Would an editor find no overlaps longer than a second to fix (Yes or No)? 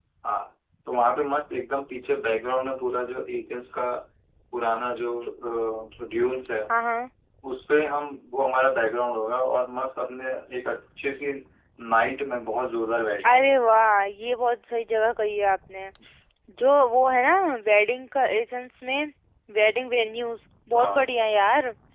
Yes